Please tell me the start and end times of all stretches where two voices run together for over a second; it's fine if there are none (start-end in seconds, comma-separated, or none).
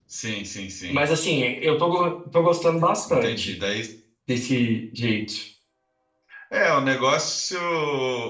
none